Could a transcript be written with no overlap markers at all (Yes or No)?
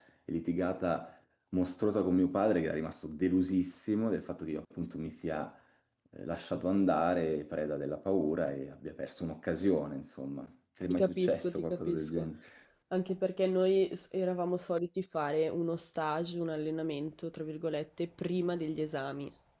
No